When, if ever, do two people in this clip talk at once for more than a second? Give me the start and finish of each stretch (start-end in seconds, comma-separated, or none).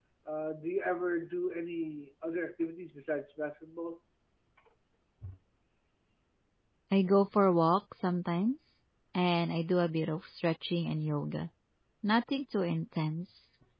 none